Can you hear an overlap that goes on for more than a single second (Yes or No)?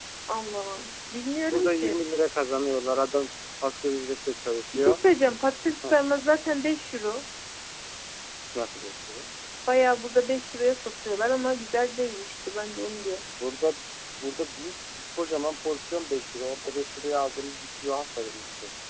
No